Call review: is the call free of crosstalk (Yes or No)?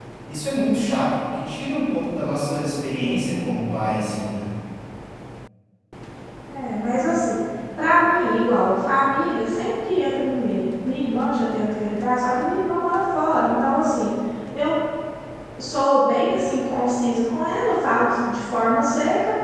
Yes